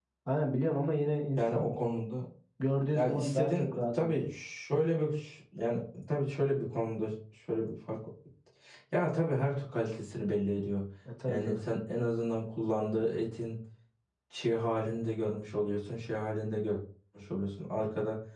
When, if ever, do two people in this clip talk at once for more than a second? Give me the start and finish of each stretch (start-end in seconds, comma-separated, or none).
2.9-4.2